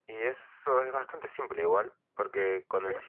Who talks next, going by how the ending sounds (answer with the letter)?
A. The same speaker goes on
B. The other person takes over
A